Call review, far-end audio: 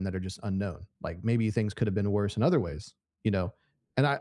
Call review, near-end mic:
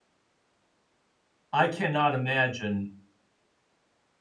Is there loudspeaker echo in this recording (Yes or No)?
No